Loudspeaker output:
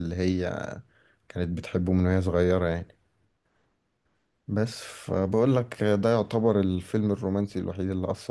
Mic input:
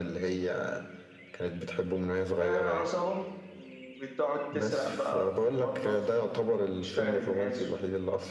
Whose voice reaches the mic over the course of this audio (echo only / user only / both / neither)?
both